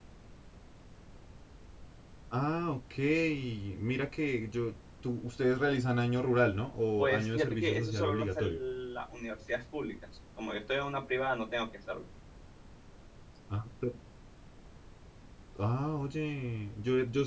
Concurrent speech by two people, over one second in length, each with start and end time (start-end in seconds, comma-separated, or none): 7.0-8.6